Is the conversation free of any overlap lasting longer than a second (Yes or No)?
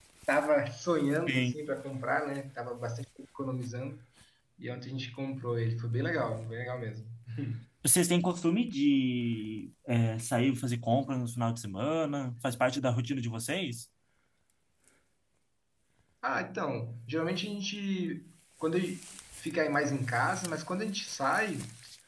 Yes